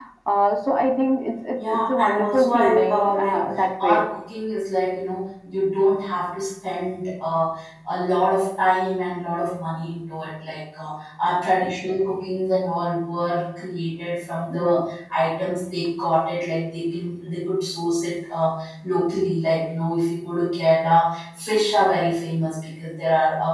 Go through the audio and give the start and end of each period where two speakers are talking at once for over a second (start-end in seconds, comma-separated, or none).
1.7-3.4